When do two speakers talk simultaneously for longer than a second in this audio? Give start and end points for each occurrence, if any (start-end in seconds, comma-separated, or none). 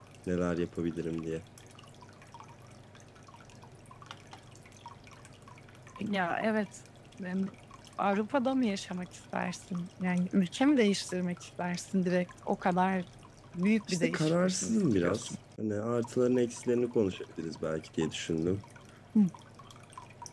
13.9-15.3